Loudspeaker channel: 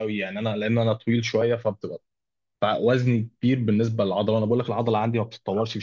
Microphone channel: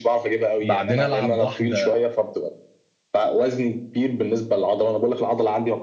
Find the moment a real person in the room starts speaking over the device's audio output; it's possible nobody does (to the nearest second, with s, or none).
1 s